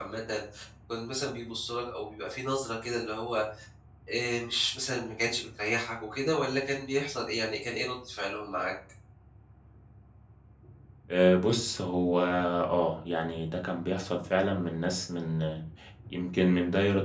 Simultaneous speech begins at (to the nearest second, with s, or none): none